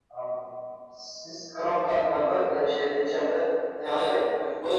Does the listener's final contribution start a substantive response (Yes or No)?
Yes